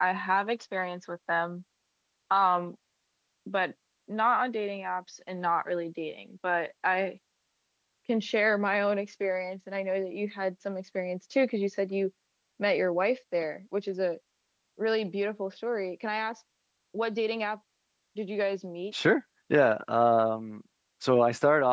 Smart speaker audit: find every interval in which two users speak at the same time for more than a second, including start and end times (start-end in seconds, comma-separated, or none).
none